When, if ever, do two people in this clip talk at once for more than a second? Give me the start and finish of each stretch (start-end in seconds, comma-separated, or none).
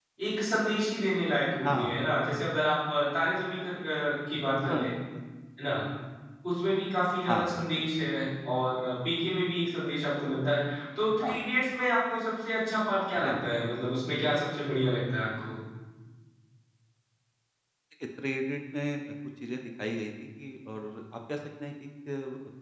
none